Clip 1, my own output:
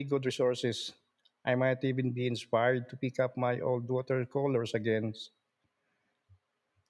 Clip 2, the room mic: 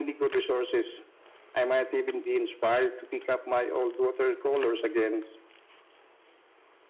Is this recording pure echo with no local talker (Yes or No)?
Yes